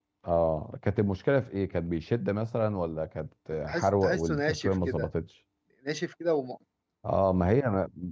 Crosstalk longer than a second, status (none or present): present